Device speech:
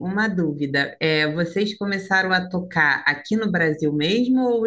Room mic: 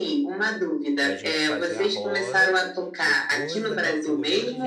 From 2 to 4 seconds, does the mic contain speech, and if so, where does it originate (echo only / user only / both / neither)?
both